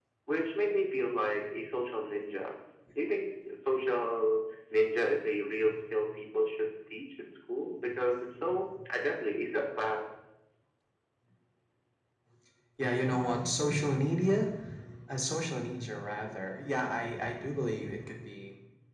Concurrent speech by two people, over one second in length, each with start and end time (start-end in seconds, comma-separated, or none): none